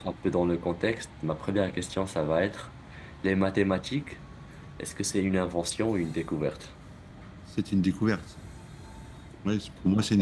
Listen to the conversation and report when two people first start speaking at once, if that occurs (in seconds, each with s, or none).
none